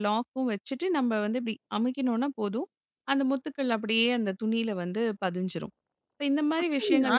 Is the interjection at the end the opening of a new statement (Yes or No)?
Yes